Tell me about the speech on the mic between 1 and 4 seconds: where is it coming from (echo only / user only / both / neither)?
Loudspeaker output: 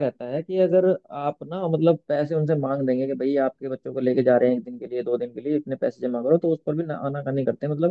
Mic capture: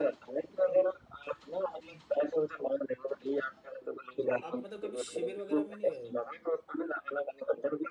echo only